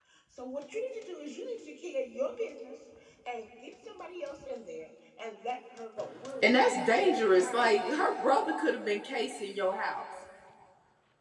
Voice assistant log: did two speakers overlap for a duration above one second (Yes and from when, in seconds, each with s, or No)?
Yes, from 6.4 s